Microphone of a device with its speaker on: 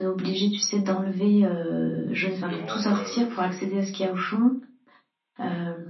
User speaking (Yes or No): Yes